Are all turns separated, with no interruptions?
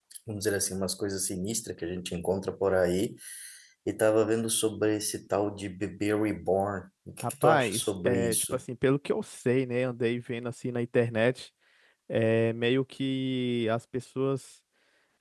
No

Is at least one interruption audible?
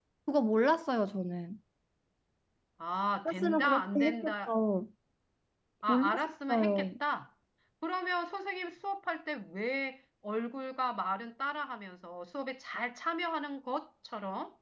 Yes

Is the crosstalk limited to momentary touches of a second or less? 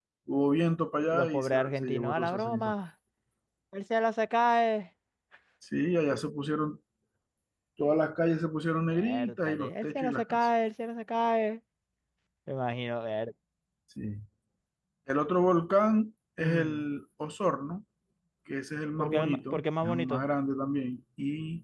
No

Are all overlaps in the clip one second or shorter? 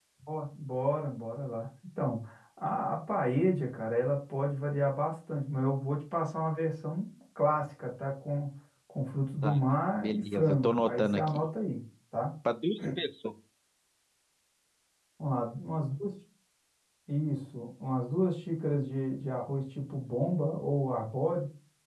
No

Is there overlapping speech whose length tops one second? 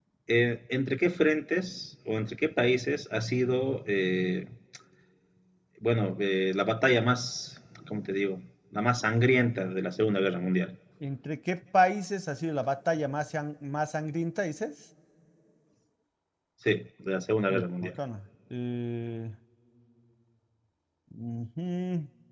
No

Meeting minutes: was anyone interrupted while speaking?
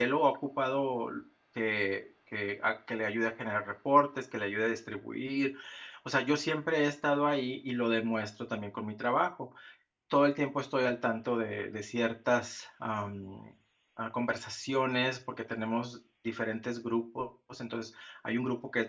No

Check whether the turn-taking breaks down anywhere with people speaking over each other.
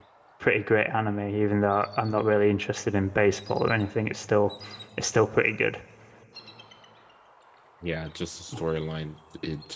No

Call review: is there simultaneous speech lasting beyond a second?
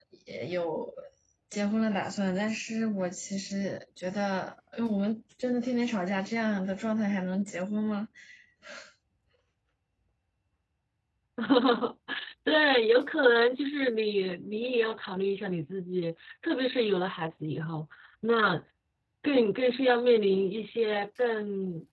No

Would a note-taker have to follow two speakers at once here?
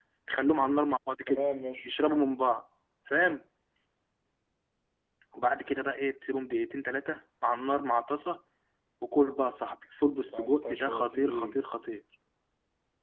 Yes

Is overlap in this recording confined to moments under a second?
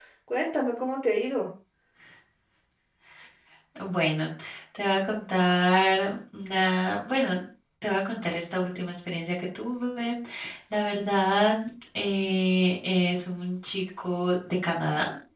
Yes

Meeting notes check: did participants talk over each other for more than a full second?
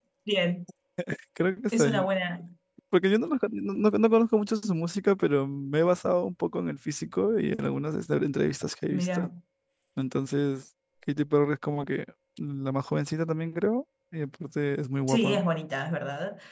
No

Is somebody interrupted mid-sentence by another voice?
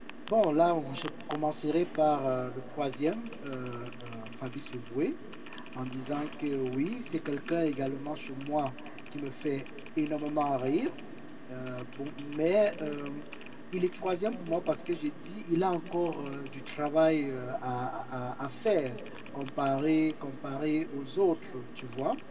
No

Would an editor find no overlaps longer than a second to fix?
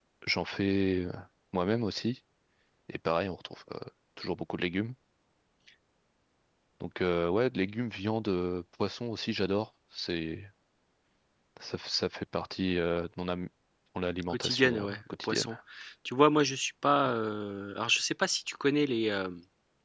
No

